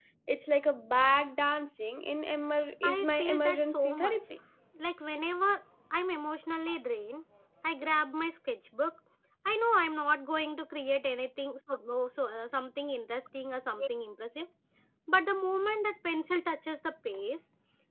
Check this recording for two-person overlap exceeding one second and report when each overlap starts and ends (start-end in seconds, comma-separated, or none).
2.8-4.2